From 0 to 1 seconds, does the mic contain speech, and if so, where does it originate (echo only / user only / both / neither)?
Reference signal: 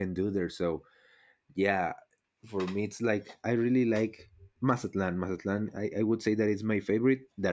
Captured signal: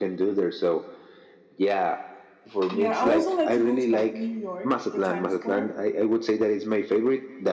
echo only